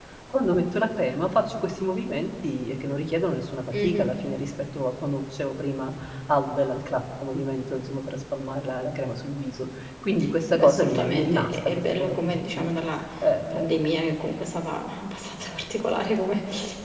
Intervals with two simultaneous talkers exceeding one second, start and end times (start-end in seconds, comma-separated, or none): 10.5-12.7